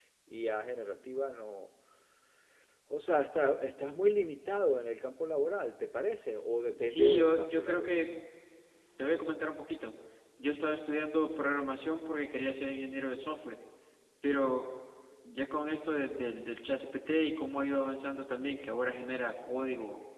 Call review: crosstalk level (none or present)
present